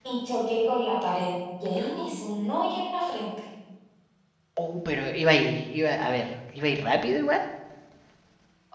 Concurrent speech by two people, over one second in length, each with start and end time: none

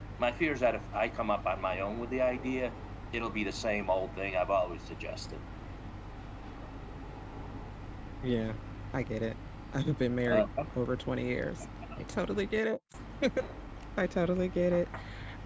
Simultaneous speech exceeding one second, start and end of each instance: none

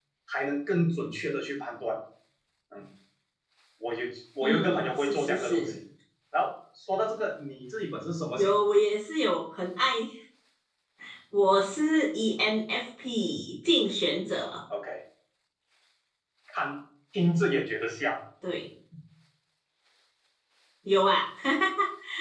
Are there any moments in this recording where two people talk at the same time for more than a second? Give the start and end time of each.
4.4-5.8

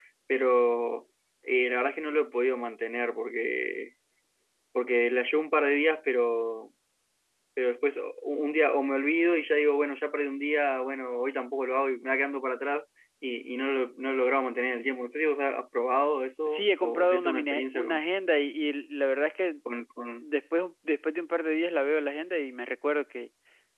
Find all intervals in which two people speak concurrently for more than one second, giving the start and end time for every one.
16.5-18.0

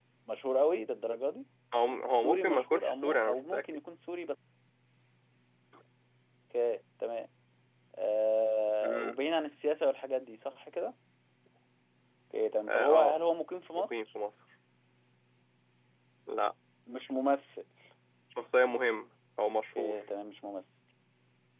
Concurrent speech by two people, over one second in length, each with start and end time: 2.2-3.6

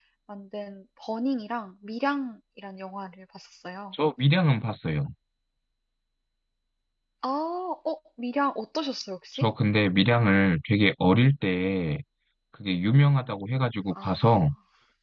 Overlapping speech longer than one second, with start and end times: none

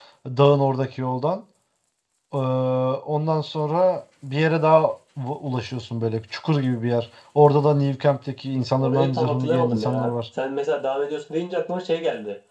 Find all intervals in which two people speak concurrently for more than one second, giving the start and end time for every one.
8.8-10.1

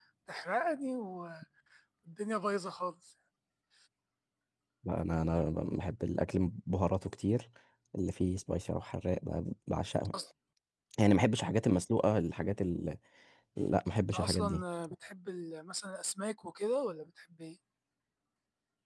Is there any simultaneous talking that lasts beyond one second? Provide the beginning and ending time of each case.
none

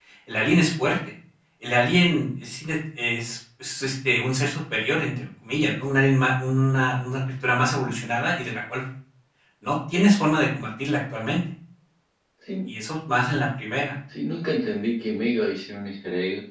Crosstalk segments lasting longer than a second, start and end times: none

